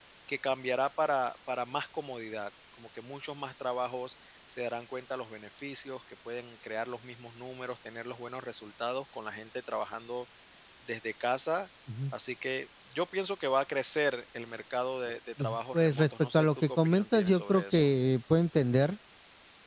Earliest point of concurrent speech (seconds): 15.4 s

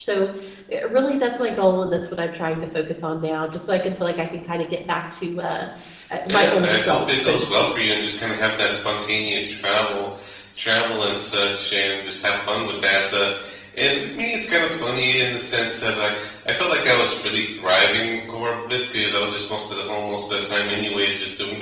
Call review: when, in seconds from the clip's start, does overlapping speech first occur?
6.3 s

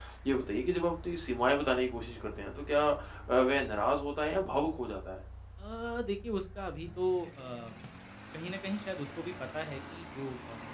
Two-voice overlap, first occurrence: none

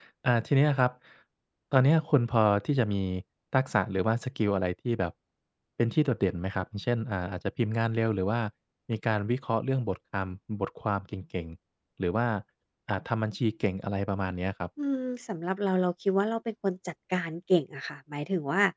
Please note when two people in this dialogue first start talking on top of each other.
none

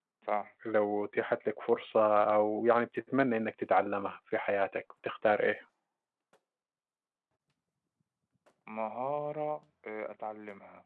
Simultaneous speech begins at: none

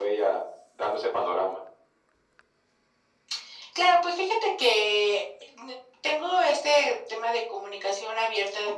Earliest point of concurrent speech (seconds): none

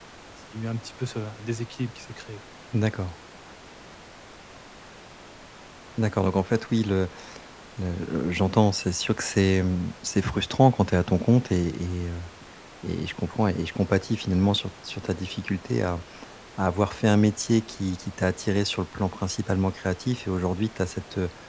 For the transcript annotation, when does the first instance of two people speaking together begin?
none

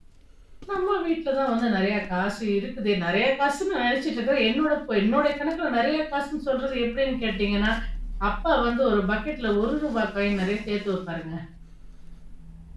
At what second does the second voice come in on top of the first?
none

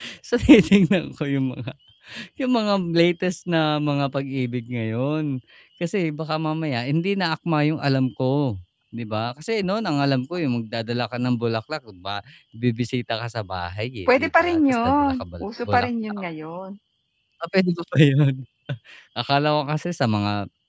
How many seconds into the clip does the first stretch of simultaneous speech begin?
14.1 s

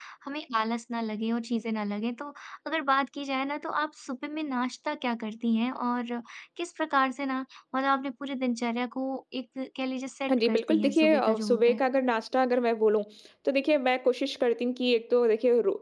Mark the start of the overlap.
10.3 s

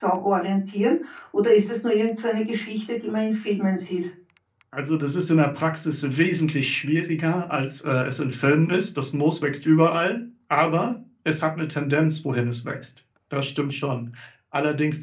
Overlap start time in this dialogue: none

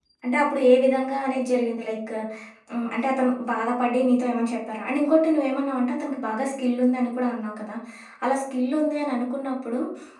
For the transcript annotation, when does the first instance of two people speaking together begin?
none

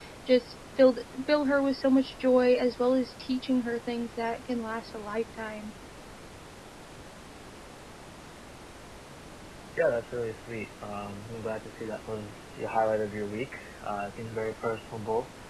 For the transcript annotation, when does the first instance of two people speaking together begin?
none

